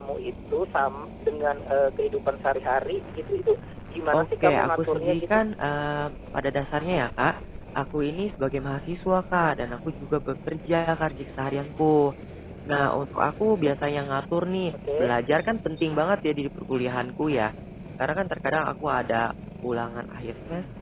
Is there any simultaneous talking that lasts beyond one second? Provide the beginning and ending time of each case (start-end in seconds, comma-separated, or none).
4.1-5.4